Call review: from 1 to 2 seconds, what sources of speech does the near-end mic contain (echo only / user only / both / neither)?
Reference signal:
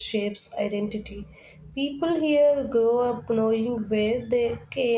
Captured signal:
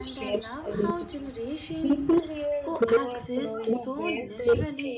both